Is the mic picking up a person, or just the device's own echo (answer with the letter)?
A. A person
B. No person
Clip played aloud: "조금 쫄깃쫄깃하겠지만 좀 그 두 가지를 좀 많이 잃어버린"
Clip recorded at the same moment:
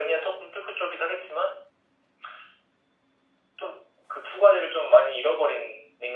B